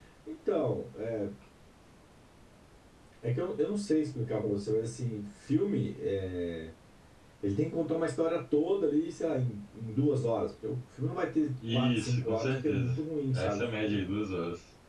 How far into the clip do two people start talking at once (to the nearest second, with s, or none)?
12 s